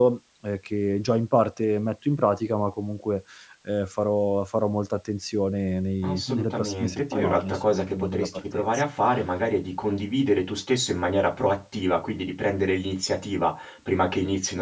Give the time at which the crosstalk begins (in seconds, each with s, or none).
6.0 s